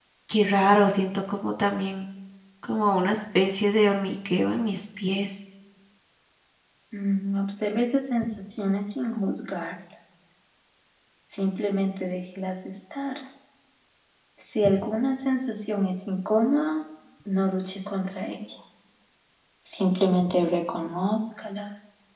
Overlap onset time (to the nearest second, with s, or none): none